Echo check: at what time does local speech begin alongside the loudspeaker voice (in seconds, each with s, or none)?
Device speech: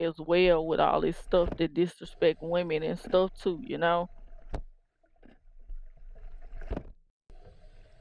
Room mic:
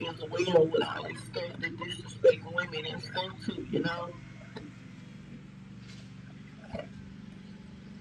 none